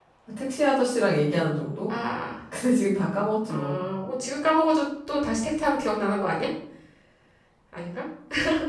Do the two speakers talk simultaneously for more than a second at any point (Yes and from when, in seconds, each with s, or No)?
No